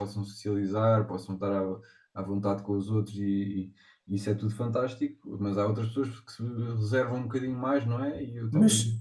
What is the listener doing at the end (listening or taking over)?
taking over